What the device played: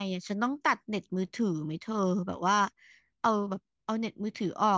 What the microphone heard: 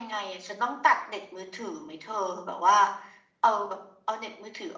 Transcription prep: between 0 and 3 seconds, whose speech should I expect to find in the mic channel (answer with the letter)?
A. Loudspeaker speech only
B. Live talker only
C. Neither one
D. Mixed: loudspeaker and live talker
A